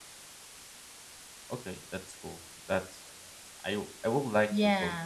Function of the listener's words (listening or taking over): listening